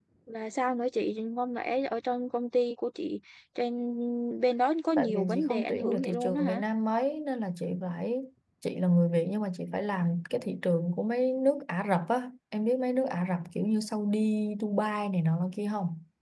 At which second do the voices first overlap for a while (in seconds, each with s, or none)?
5.0 s